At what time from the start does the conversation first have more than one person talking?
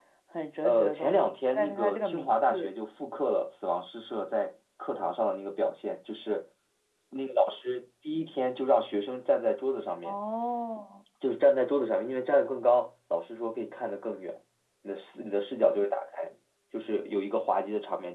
0.6 s

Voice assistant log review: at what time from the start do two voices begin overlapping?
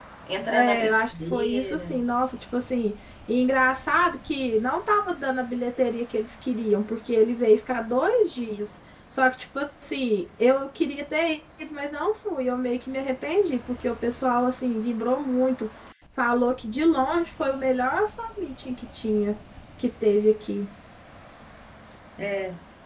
0.5 s

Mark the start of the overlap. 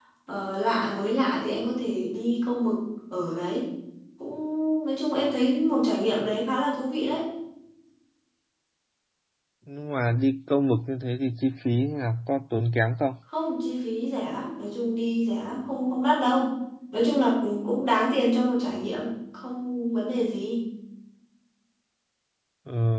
none

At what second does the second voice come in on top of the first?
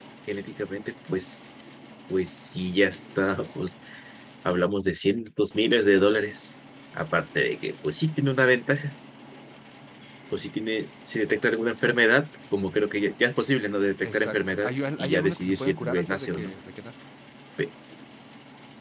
14.0 s

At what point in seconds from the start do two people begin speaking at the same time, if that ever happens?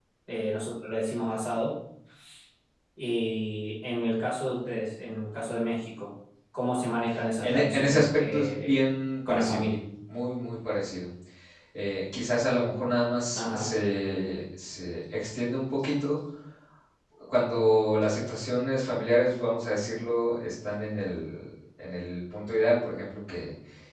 7.4 s

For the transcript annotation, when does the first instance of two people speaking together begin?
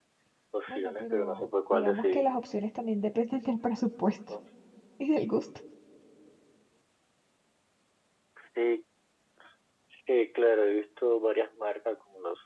0.7 s

